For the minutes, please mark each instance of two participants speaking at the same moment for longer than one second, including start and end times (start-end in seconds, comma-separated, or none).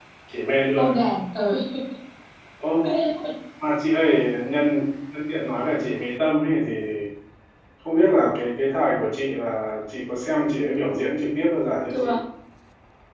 none